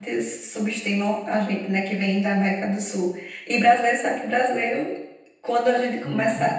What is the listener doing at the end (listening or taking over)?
listening